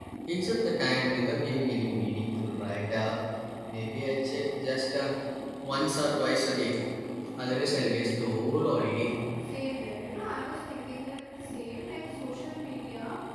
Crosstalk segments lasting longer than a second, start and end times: none

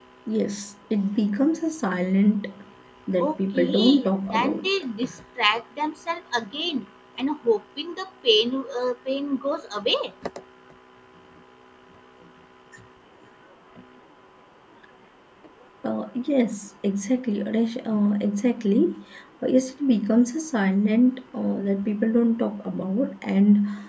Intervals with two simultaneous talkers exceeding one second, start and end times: 3.2-4.7

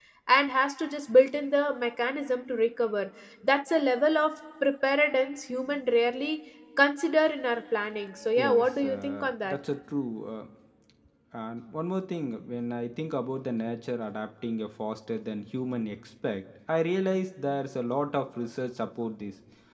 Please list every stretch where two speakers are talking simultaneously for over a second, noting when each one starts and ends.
8.4-9.6

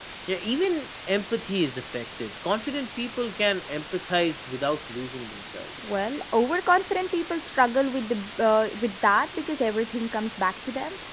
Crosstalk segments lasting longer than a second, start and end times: none

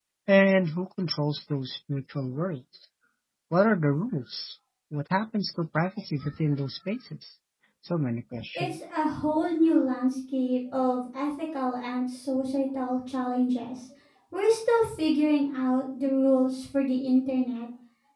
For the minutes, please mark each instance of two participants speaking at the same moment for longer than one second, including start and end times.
none

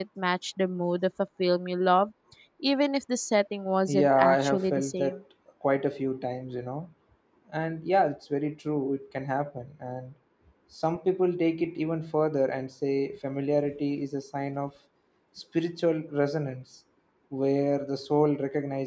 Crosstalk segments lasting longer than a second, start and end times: 3.9-5.1

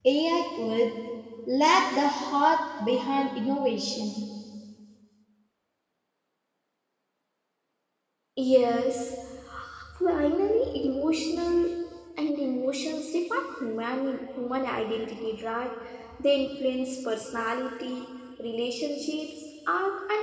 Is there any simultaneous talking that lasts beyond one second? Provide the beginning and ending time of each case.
none

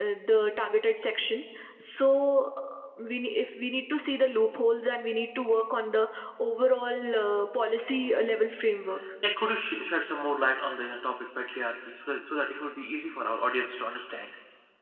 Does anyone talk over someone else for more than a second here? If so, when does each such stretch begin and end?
none

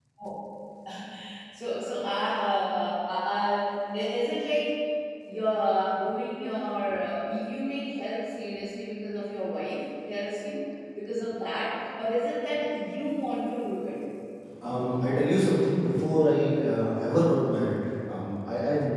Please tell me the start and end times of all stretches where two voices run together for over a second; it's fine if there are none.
none

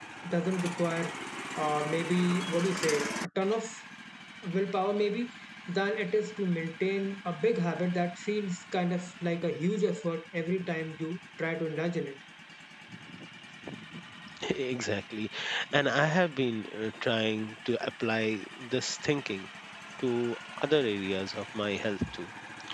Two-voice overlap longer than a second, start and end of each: none

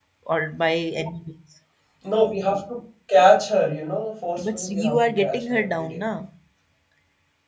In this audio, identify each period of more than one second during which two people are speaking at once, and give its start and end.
4.4-6.0

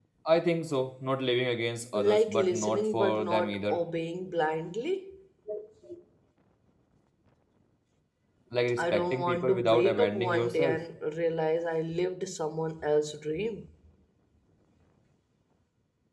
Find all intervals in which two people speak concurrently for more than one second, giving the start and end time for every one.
1.9-3.8, 8.8-10.8

